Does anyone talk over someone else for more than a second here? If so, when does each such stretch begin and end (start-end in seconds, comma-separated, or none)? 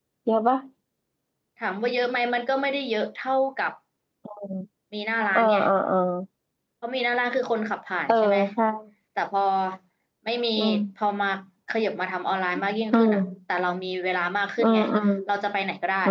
none